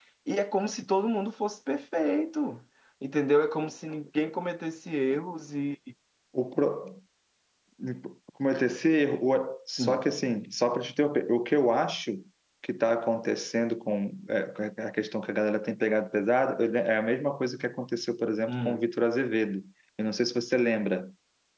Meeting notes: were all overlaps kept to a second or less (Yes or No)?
Yes